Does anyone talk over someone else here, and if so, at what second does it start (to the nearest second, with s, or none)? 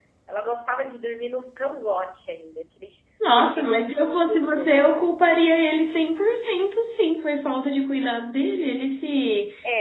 3 s